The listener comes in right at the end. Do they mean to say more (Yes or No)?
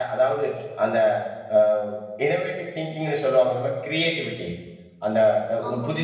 No